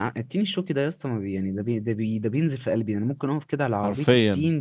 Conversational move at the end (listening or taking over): listening